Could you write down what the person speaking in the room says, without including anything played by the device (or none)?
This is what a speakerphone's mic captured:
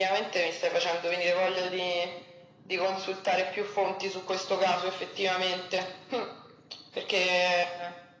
none